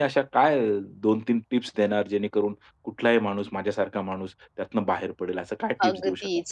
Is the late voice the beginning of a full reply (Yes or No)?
Yes